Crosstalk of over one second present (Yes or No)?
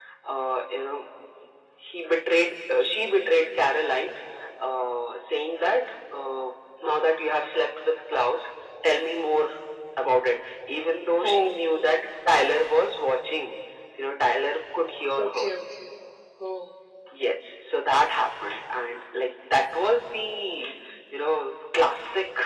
No